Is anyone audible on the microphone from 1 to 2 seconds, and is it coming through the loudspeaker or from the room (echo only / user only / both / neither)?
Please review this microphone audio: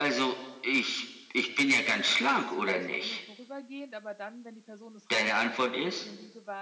echo only